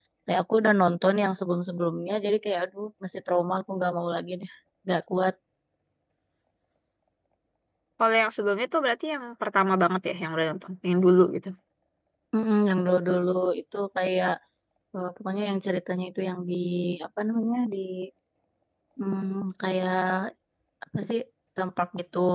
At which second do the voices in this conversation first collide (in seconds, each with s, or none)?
none